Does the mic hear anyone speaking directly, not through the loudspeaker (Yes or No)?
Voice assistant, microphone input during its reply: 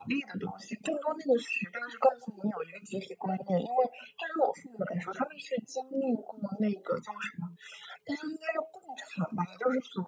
No